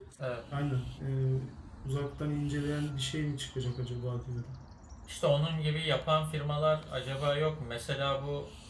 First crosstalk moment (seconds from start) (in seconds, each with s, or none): none